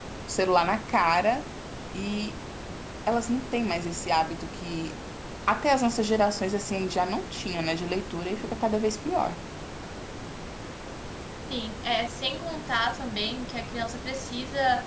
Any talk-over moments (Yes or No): No